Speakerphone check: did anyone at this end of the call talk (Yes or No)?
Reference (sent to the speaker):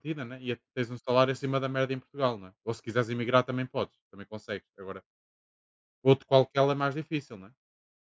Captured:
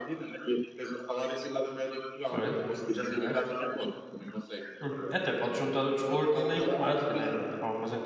Yes